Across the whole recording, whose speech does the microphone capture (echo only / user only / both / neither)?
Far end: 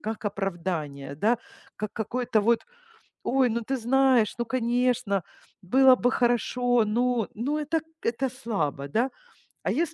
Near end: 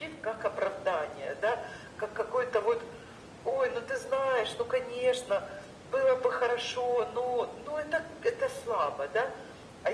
echo only